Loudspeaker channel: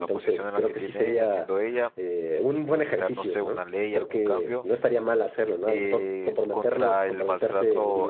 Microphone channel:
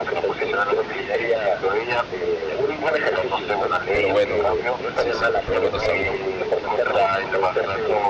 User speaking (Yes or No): Yes